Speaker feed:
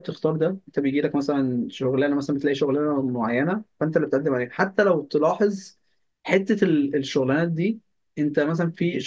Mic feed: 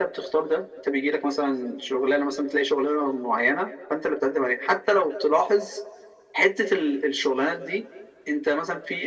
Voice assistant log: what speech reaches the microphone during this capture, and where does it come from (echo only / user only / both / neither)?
echo only